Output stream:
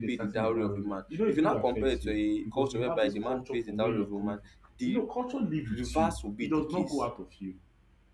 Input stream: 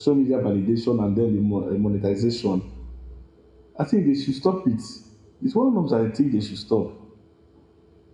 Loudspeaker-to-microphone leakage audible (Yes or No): No